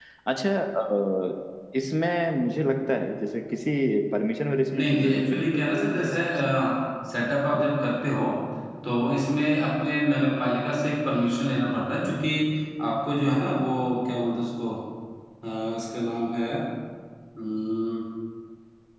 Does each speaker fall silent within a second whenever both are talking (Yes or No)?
No